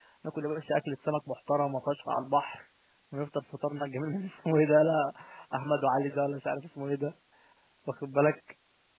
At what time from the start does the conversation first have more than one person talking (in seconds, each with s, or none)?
none